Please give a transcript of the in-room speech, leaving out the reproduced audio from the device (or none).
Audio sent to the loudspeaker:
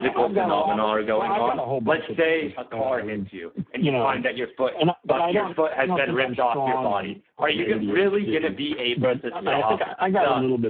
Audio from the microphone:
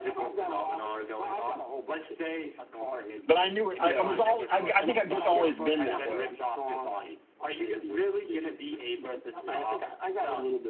But I knew it. I, I was all. I, I think I've just always been that way.